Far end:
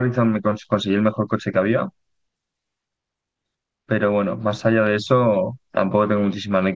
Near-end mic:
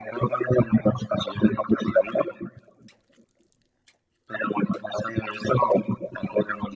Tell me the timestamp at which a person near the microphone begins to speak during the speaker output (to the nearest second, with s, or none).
none